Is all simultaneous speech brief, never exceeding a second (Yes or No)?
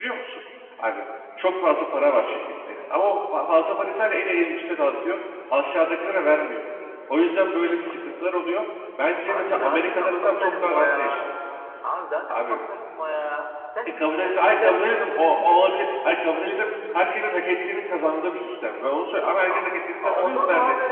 No